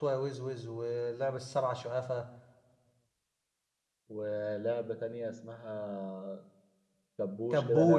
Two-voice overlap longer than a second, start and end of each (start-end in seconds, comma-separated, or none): none